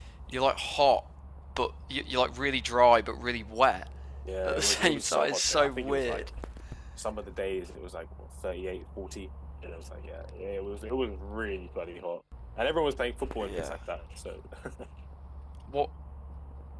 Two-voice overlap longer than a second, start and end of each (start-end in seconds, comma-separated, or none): 4.4-6.2